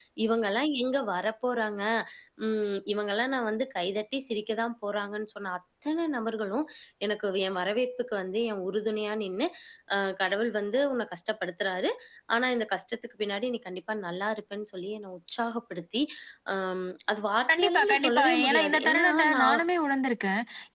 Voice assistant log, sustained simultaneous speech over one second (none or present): present